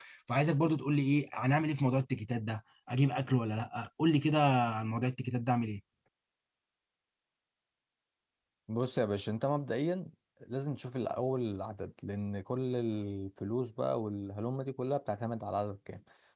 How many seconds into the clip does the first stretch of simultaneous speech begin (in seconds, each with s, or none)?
none